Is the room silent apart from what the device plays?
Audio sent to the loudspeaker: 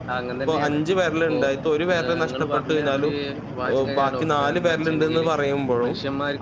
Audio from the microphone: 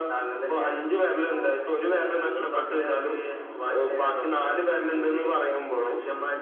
Yes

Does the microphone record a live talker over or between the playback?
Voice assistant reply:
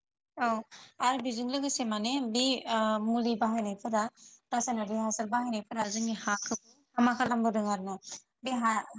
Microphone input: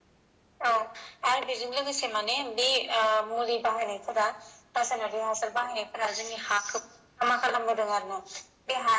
No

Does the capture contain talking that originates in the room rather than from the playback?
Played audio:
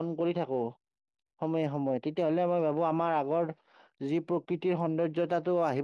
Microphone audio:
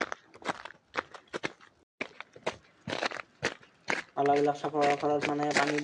Yes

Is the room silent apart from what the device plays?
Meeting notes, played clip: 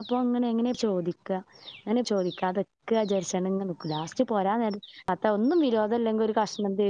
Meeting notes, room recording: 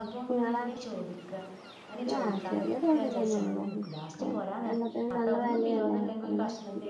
No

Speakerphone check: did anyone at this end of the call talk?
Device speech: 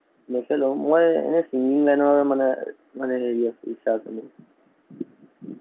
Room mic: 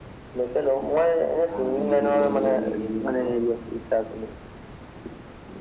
Yes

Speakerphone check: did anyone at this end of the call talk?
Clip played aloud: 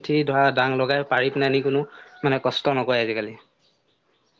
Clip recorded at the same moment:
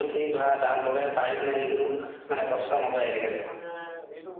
Yes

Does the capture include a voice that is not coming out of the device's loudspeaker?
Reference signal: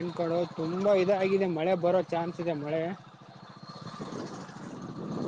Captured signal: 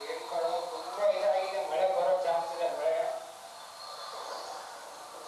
No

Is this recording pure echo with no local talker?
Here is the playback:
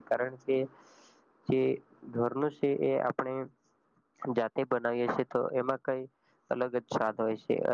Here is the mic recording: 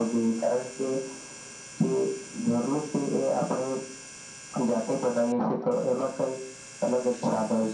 Yes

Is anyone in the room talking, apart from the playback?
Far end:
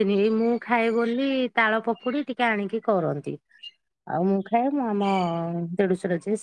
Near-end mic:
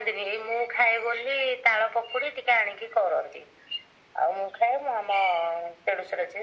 No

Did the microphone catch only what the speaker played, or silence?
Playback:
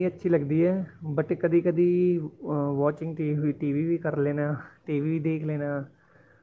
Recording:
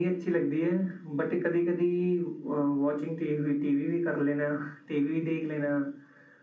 Yes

